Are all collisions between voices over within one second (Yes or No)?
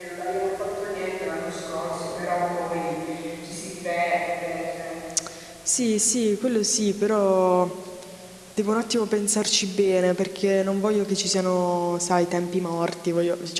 Yes